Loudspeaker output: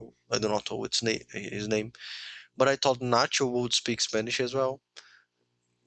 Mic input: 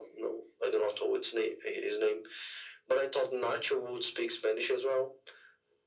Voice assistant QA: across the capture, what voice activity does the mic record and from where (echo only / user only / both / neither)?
echo only